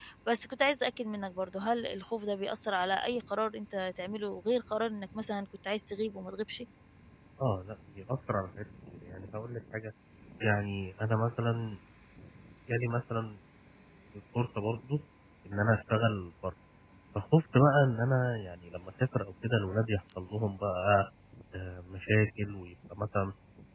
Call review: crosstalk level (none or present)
none